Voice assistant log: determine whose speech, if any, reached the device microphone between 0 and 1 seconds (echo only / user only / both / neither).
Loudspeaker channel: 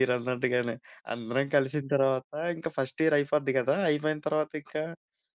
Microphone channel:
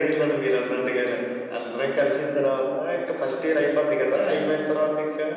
echo only